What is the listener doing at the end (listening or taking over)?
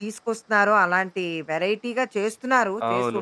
taking over